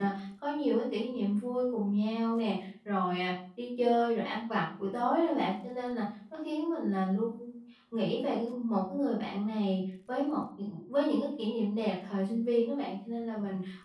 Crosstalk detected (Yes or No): No